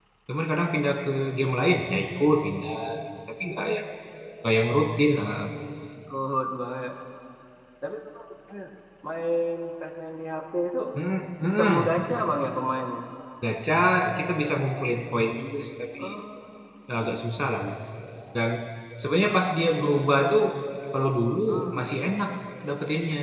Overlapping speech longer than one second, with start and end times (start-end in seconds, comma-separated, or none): none